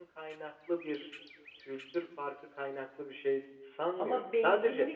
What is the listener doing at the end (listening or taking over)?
taking over